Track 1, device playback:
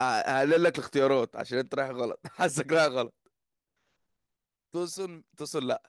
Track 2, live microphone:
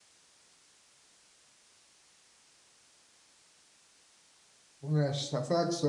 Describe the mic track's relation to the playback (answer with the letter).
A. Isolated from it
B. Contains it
A